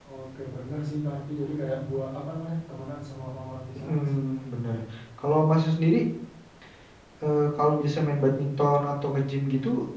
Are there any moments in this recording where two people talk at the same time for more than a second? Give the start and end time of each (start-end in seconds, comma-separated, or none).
none